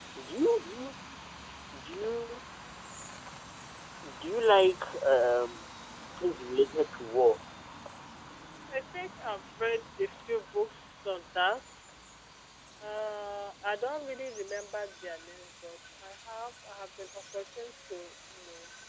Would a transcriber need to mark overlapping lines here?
No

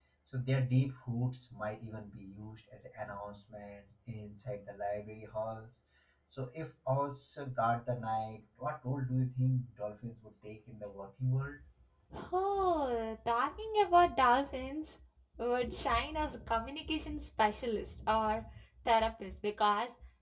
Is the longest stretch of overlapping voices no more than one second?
Yes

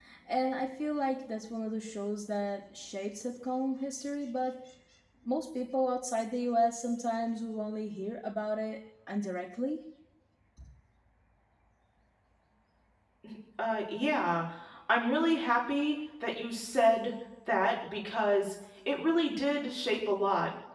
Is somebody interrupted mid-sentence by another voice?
No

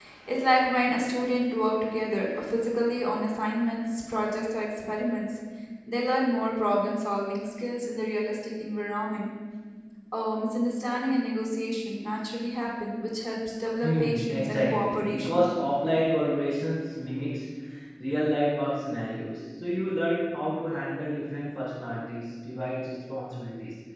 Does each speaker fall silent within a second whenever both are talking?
No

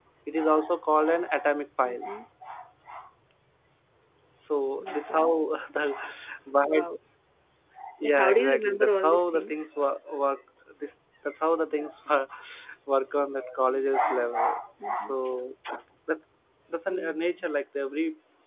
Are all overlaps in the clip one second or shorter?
No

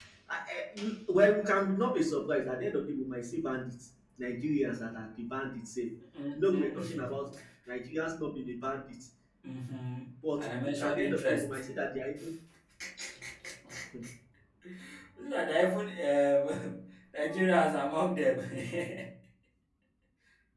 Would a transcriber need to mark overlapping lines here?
Yes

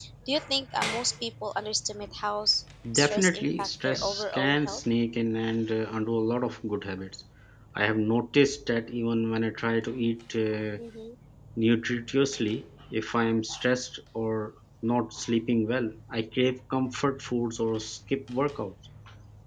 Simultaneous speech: Yes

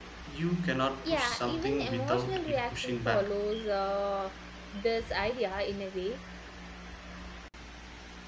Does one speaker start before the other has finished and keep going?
Yes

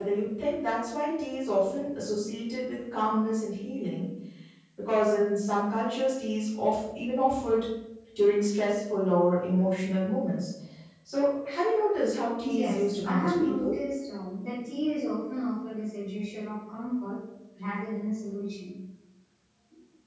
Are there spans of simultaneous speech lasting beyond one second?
Yes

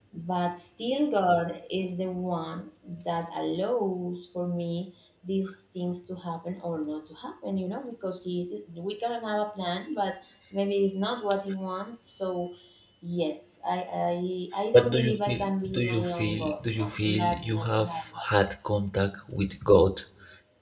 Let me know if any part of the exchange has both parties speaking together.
Yes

